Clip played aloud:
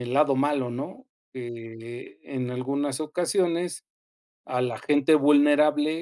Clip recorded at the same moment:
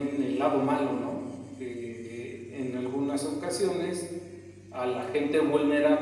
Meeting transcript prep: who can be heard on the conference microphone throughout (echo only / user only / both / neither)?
echo only